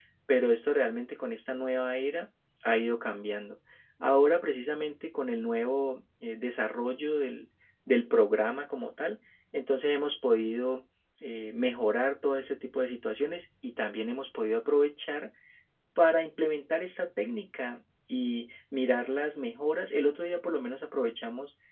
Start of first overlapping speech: none

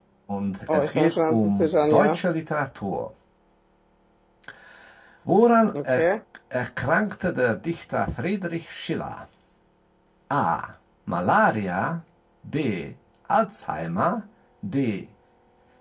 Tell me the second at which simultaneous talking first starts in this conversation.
0.7 s

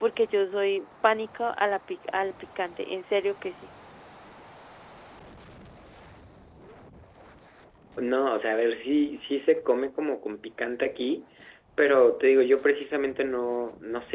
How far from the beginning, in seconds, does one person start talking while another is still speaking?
none

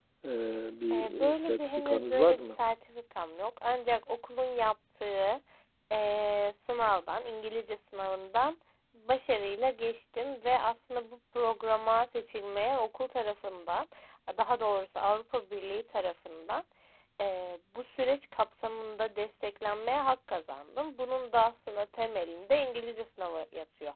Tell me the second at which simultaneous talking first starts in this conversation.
0.9 s

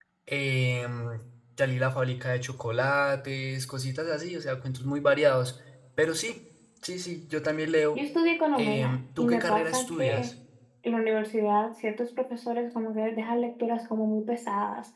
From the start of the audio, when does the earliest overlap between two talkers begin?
8.6 s

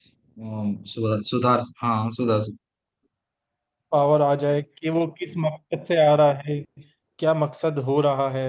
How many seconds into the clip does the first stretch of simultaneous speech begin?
none

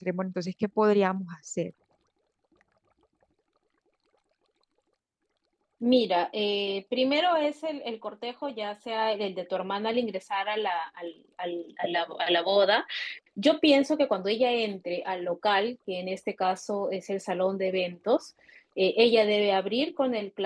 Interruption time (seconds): none

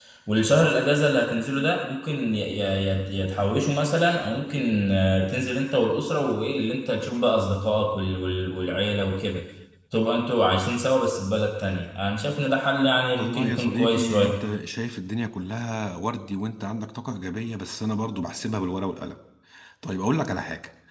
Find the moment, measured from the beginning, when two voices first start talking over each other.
13.1 s

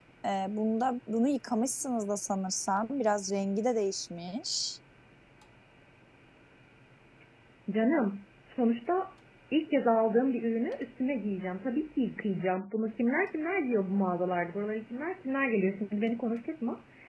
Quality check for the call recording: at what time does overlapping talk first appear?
none

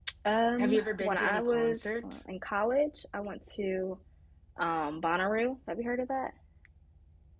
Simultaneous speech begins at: 0.6 s

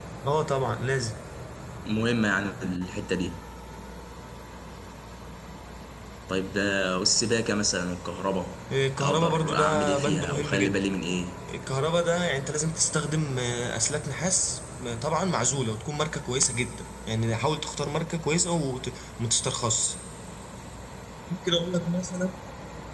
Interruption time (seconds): 9.0 s

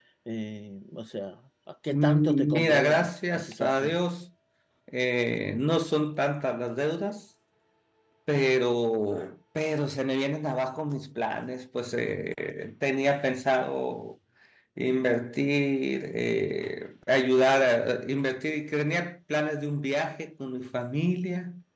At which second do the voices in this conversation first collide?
1.9 s

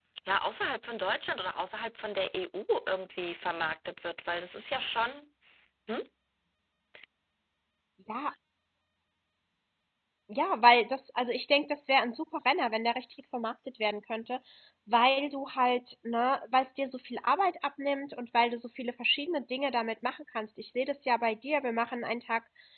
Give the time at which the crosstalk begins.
none

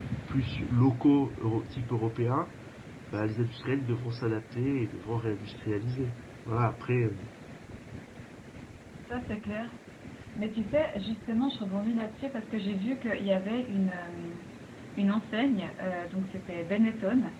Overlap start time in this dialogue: none

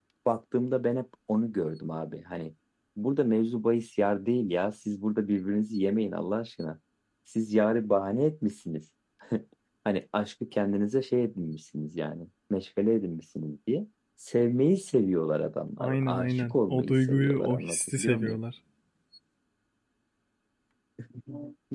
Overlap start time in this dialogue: 15.8 s

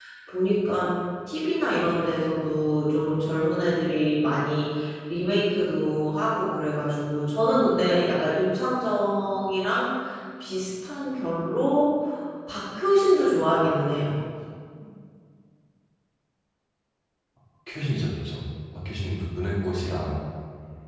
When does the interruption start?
none

